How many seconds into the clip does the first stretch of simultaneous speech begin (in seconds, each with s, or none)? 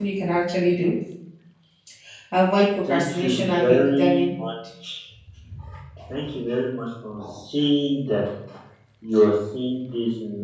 2.9 s